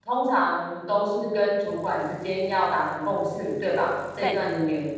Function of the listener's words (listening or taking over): listening